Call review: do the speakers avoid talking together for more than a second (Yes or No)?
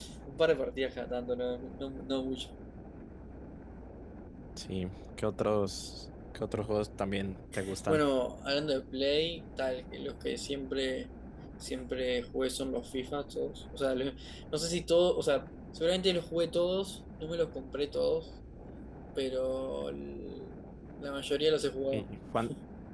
Yes